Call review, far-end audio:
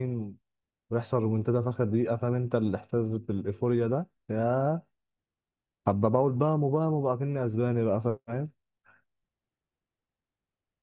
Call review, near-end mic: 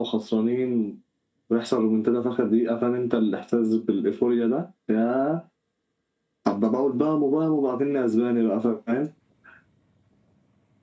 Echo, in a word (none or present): present